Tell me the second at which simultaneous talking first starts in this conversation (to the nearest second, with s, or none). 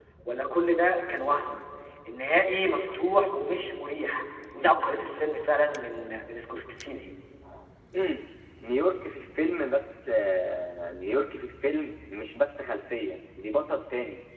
none